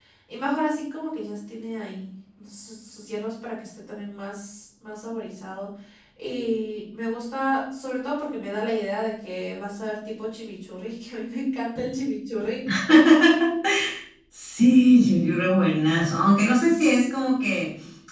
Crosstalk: none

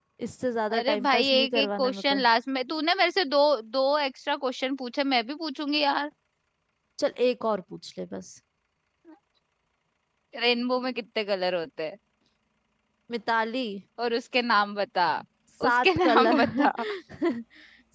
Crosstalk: present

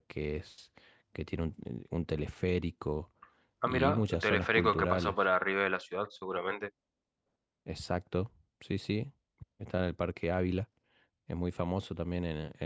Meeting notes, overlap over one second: present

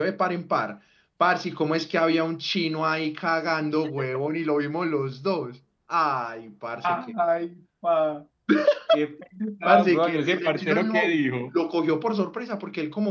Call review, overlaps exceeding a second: present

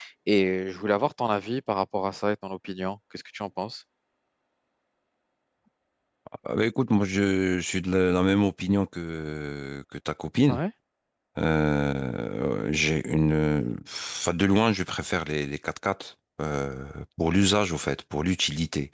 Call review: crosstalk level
none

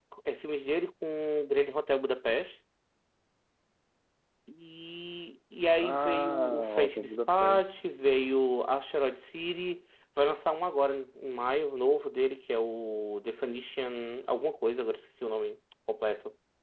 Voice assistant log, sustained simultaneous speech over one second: present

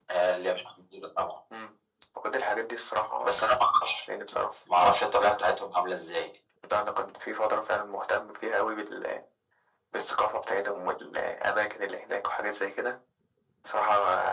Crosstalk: none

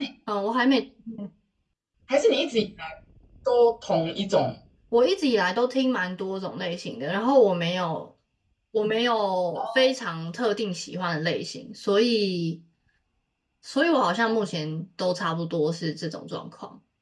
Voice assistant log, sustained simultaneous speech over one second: none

